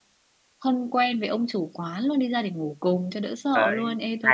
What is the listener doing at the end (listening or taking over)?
taking over